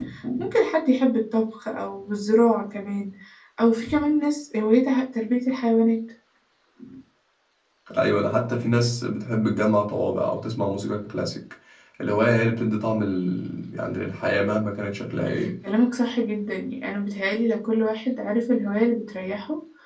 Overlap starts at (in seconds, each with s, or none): none